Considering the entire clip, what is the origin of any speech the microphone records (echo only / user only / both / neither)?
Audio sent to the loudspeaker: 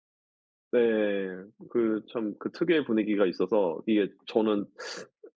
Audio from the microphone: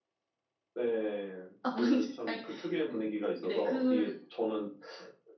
both